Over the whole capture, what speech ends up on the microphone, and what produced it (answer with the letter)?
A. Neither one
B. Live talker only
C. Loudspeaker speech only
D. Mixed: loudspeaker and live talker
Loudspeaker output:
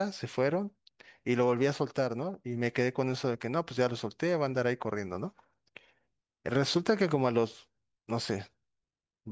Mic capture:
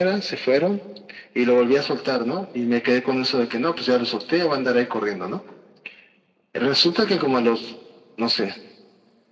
C